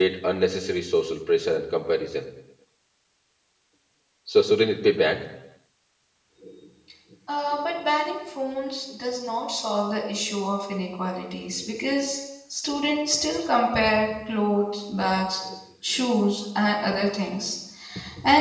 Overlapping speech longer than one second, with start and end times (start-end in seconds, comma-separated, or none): none